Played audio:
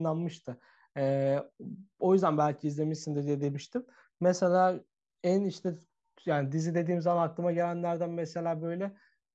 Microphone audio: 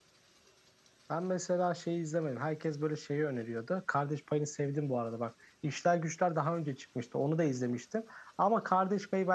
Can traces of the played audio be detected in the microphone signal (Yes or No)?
No